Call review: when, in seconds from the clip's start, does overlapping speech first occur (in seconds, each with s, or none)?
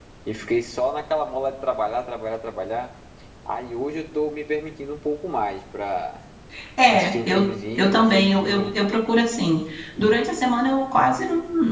6.9 s